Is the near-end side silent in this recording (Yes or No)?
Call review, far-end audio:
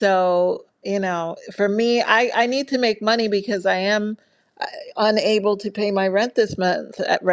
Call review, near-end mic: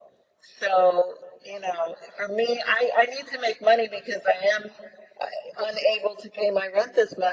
Yes